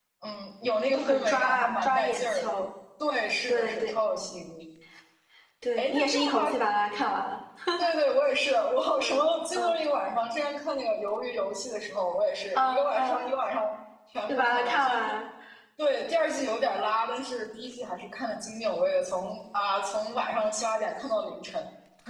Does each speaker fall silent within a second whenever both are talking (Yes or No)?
No